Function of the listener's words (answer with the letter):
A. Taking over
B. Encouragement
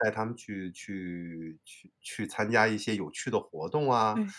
B